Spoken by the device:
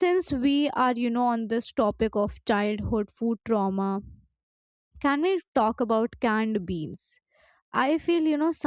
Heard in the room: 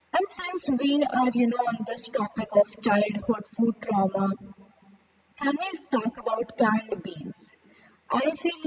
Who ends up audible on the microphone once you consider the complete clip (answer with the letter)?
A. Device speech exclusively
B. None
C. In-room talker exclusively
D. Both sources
A